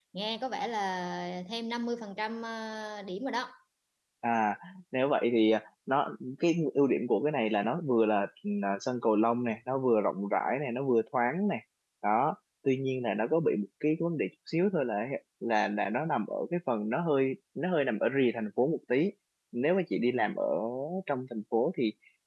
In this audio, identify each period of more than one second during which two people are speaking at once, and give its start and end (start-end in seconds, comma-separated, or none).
none